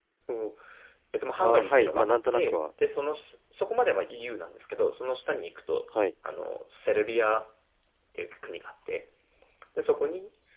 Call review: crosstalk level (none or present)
present